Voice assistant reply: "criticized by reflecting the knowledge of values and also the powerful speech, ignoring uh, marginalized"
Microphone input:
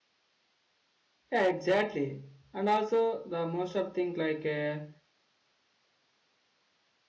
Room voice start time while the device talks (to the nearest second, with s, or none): 1 s